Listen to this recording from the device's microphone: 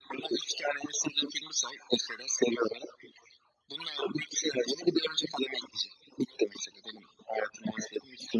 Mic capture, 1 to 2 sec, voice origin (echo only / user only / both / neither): echo only